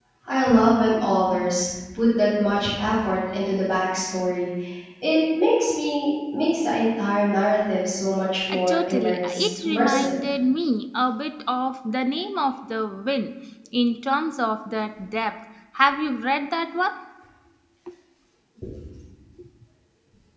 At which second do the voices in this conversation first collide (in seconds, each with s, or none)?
8.5 s